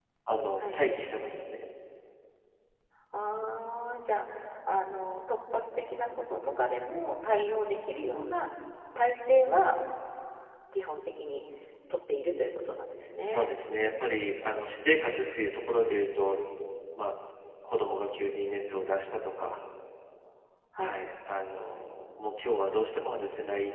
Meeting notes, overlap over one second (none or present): none